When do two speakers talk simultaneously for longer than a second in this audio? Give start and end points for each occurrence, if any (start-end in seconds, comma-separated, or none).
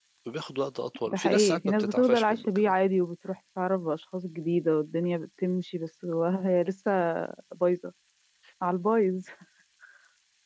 1.0-2.7